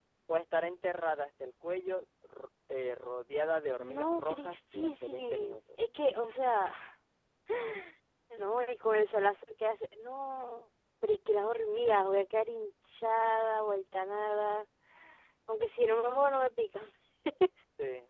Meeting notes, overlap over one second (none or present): present